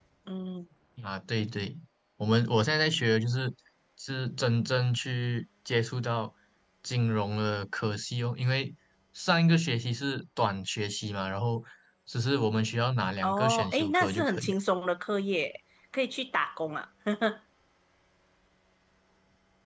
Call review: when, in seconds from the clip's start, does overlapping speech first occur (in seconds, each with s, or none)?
13.2 s